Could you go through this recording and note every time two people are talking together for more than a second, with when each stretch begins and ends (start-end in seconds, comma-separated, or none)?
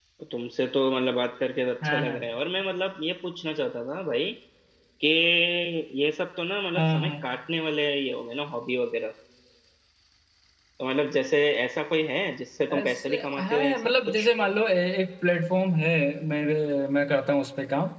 12.7-14.3